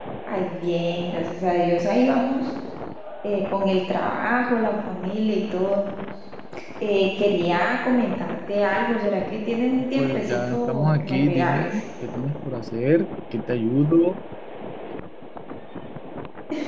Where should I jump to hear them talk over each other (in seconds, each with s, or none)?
10.0 s